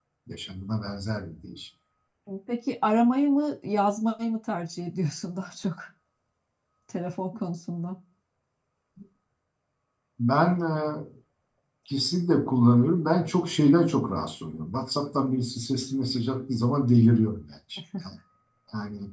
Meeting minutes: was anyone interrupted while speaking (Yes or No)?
No